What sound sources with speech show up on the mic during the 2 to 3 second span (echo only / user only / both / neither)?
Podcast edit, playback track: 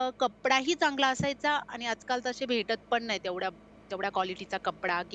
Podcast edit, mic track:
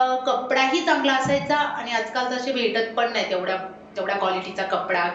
echo only